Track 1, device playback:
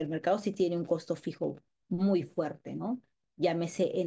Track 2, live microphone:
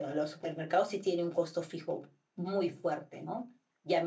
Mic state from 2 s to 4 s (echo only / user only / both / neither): echo only